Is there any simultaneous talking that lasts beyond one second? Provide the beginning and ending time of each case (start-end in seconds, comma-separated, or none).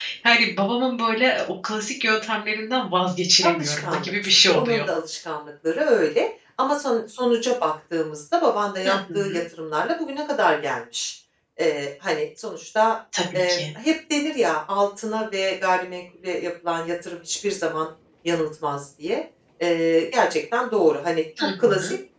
3.4-4.8